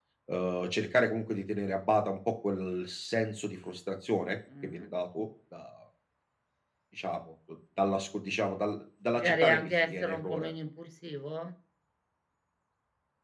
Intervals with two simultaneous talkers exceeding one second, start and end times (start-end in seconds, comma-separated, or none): 9.1-10.5